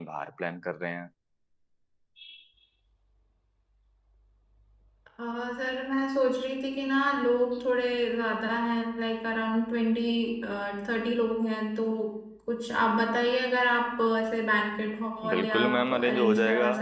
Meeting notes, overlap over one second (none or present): present